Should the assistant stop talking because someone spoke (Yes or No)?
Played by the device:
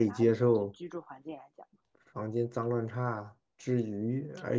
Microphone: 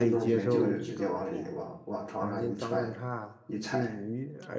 Yes